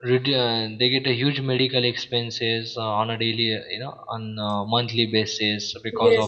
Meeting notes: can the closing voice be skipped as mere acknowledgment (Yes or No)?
No